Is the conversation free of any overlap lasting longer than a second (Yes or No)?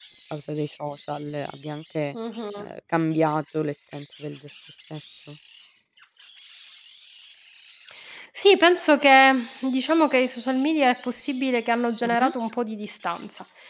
Yes